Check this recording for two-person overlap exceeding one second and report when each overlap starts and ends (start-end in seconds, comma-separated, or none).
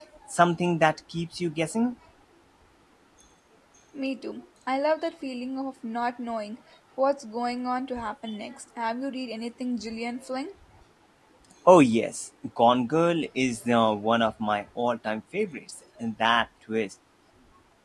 none